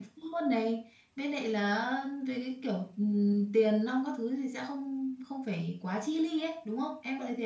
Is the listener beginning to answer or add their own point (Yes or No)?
Yes